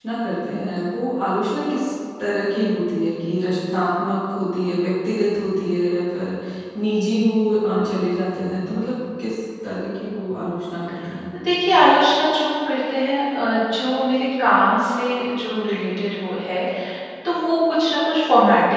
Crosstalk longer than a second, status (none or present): none